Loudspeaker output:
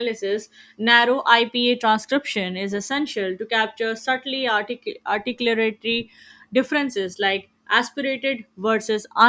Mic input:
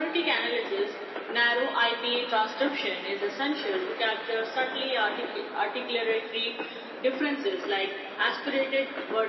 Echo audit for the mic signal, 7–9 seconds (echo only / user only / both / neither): echo only